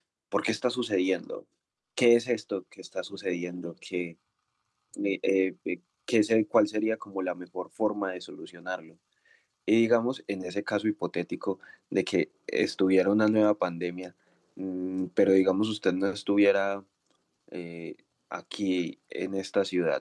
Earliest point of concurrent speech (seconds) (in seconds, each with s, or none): none